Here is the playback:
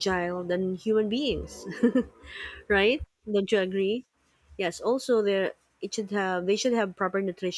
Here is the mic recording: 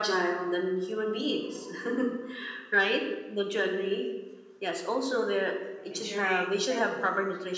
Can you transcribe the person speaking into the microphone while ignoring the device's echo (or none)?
ensuring that both